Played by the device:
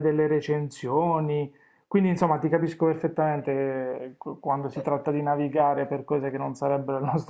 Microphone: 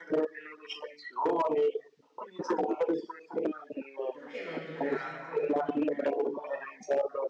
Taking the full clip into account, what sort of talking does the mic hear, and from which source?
both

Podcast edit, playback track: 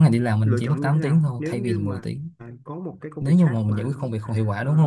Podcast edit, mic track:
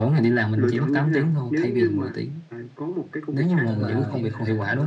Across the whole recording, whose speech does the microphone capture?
both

